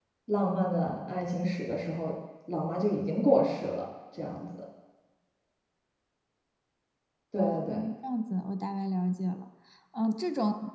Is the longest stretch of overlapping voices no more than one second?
Yes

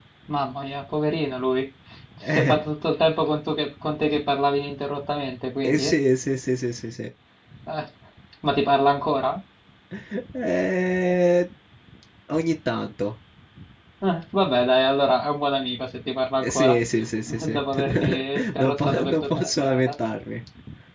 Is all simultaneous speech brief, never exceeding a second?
No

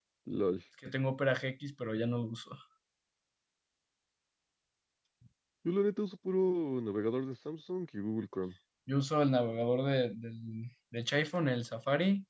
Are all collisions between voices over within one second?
Yes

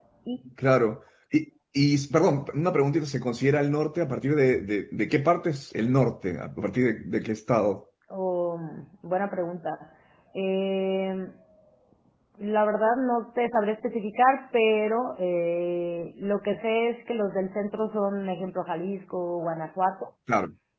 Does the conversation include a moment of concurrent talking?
No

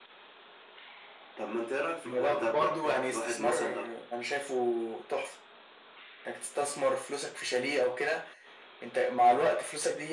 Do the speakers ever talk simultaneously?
Yes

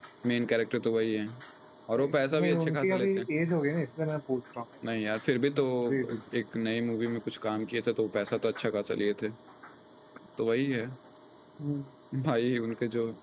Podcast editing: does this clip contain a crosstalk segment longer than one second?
Yes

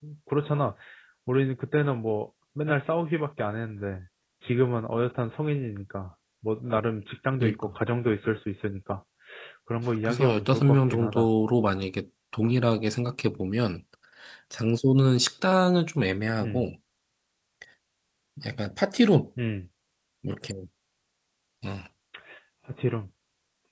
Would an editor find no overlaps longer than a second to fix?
No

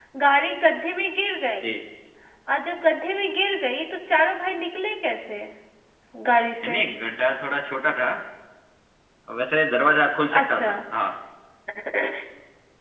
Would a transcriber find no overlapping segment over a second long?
Yes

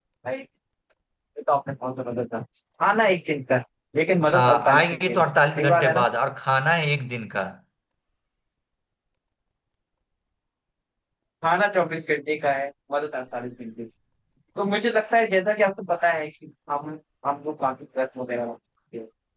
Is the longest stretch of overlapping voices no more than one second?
No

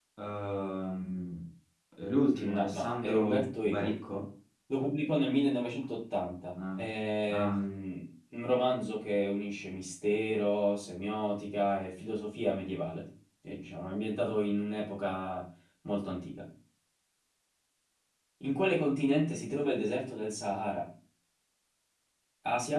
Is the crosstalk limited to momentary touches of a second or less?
No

